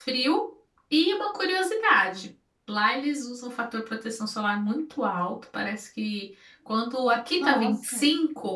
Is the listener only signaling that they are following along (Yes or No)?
Yes